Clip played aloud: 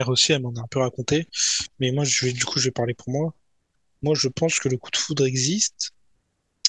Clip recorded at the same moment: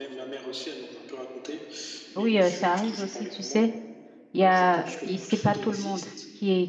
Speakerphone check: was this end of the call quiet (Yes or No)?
No